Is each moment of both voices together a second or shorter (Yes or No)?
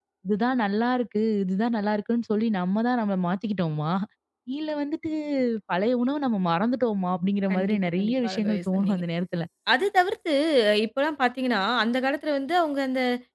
No